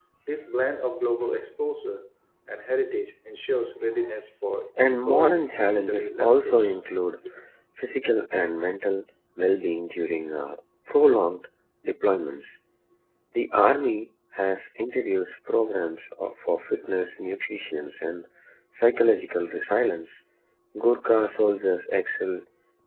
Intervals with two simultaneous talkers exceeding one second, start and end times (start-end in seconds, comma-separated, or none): 4.9-6.8